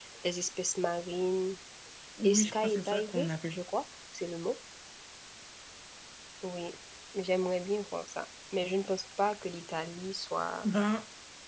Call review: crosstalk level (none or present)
present